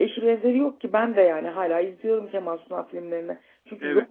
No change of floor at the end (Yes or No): Yes